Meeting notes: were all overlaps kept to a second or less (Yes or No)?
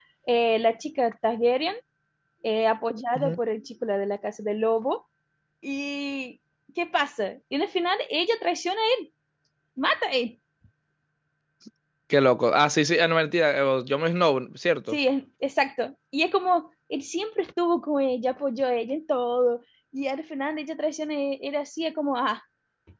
Yes